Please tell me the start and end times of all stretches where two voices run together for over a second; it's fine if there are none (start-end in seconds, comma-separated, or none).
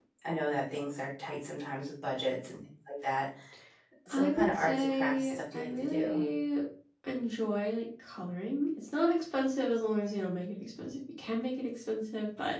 4.1-6.2